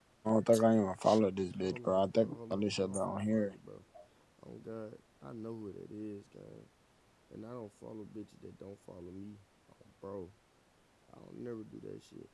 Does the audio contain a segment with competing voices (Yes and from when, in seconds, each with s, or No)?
Yes, from 1.6 s